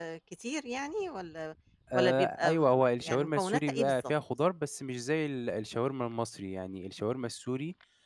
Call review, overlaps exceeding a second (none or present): present